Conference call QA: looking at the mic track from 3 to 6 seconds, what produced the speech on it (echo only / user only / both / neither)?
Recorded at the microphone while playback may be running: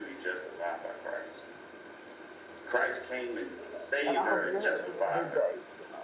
both